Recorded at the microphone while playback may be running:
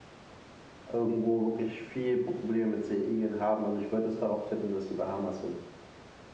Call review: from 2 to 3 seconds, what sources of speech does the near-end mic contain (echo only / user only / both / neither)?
user only